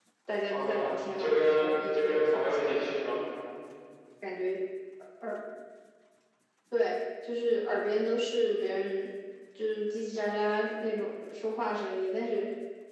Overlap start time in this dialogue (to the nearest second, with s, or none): 1 s